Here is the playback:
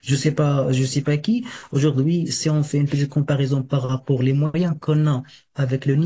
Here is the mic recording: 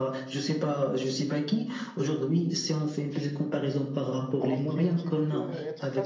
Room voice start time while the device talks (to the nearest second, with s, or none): 4 s